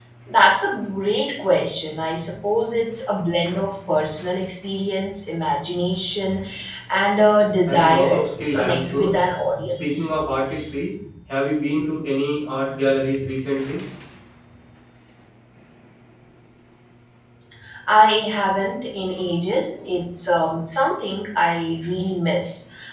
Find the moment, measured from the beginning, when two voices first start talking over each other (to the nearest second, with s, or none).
8 s